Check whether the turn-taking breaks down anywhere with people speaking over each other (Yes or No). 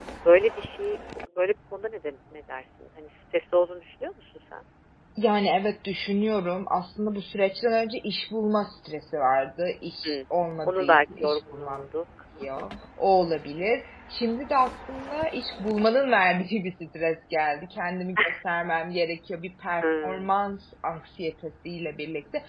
Yes